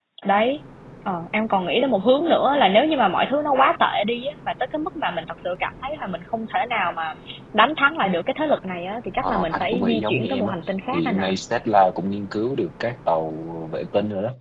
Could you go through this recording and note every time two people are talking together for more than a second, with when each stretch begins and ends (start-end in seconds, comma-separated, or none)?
9.2-10.5